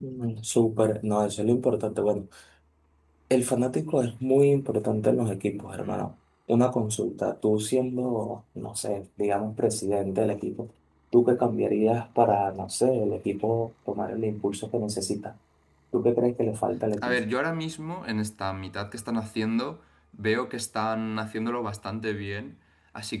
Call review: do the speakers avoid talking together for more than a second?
Yes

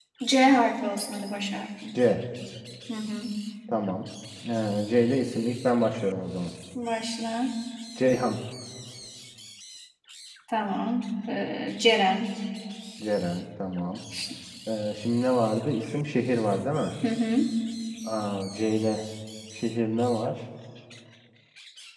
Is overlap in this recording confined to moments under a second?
Yes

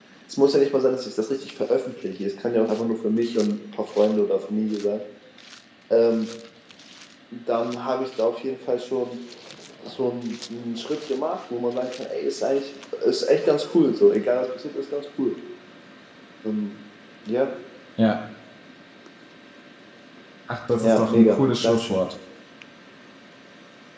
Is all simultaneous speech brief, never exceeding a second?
No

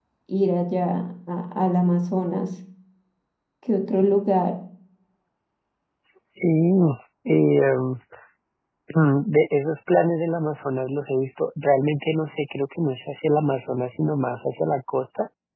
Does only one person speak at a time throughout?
Yes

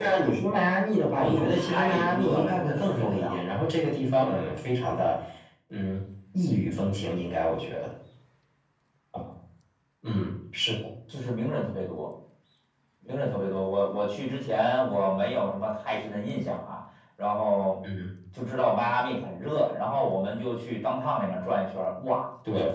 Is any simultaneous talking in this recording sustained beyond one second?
Yes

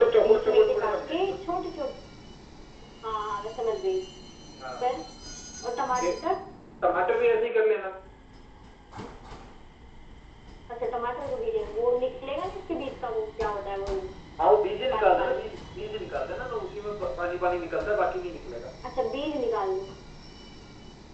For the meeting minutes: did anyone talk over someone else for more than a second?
Yes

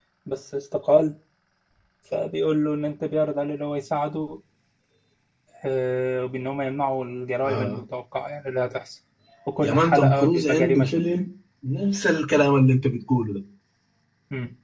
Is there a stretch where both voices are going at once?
Yes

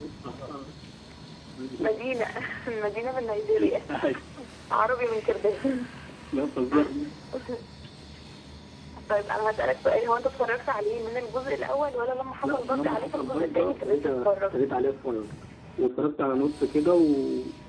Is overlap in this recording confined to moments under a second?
No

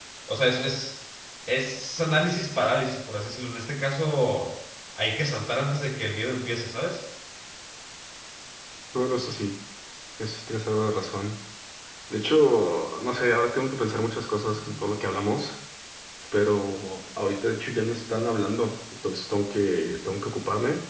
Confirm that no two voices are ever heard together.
Yes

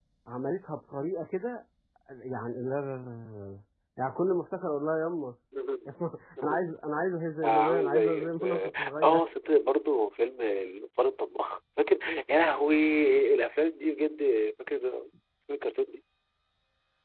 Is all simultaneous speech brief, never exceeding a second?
No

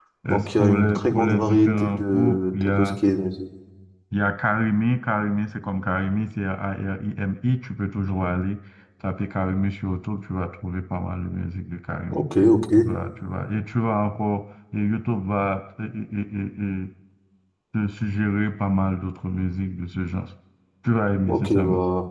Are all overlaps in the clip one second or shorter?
No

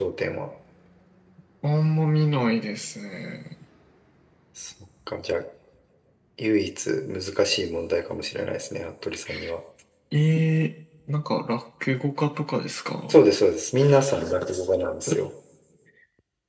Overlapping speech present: No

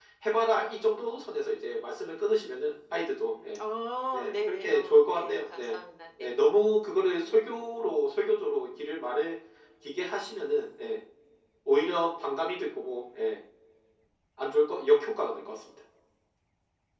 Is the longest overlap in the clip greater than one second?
Yes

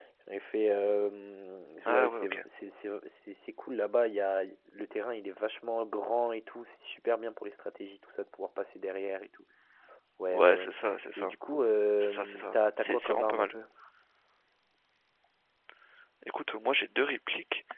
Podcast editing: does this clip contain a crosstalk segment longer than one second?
Yes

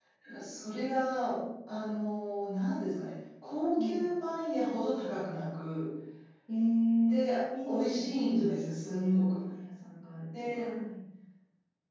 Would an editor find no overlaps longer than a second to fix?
No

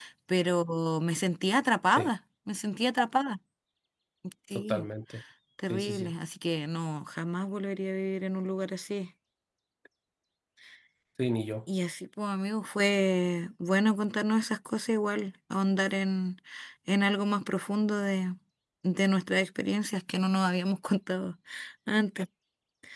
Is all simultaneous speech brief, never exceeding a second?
Yes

